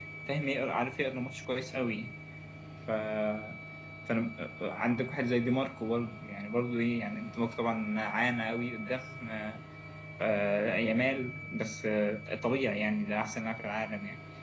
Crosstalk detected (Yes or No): No